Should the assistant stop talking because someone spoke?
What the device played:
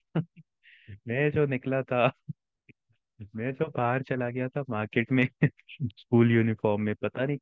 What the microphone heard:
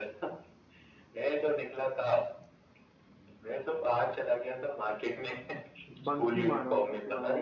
Yes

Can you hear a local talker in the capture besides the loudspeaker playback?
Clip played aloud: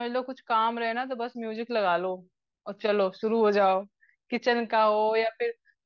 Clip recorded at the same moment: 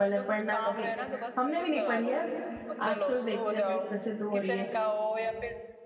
Yes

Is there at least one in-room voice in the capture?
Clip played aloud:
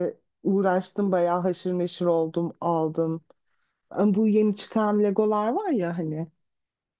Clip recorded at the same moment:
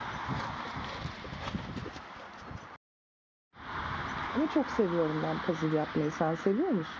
Yes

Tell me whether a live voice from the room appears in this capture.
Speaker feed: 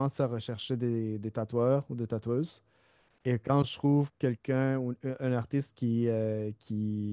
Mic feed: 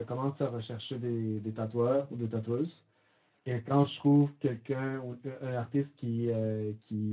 No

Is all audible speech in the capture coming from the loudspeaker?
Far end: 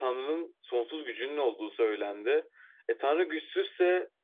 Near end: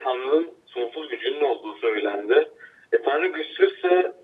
Yes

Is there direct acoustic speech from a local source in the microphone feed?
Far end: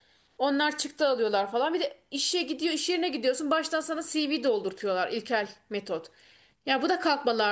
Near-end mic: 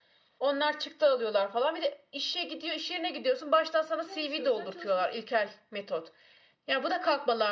Yes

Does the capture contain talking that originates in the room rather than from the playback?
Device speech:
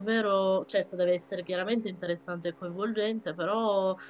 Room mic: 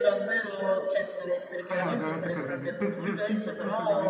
Yes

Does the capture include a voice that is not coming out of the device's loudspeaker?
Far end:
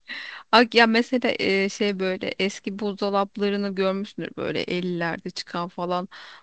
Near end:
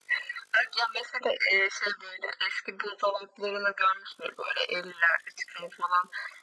No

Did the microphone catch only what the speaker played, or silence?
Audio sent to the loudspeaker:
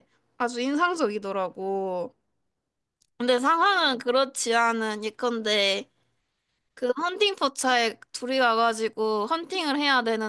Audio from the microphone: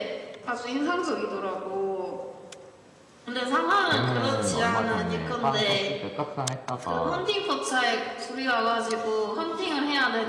No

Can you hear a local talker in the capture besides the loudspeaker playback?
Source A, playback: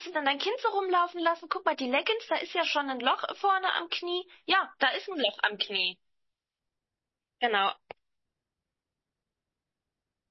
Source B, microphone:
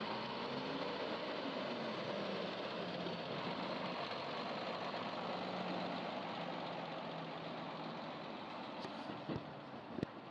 No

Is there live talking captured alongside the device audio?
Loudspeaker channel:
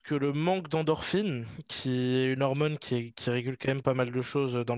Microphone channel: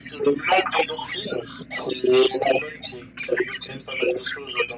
No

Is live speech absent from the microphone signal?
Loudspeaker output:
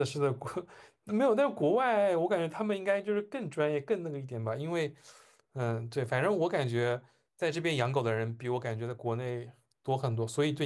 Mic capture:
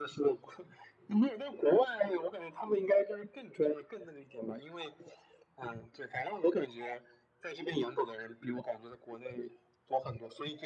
Yes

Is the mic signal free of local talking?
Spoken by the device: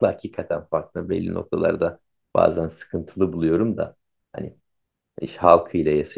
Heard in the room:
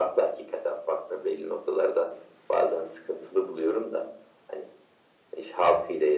Yes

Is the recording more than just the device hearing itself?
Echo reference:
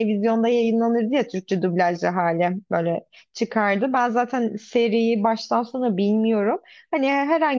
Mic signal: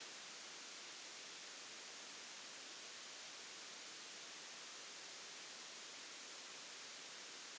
No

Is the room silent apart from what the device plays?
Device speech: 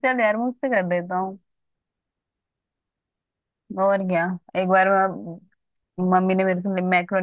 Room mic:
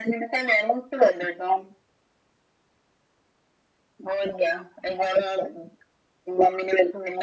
Yes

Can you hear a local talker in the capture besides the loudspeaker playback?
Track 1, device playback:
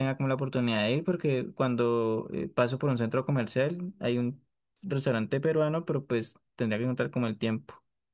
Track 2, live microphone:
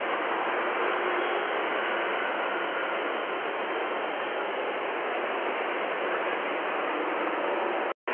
No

